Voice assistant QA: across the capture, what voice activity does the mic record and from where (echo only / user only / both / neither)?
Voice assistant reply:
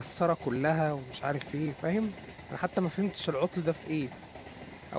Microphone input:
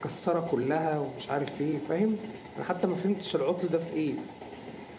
echo only